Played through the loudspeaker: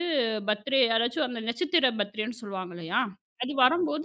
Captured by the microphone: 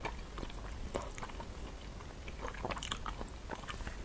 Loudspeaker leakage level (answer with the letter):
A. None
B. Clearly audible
A